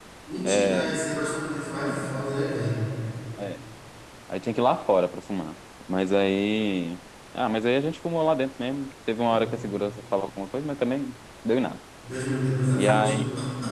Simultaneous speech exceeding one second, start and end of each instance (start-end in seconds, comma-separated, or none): none